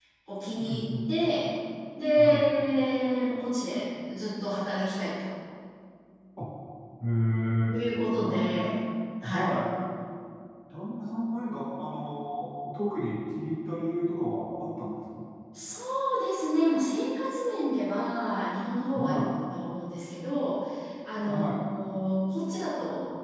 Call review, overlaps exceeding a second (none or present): none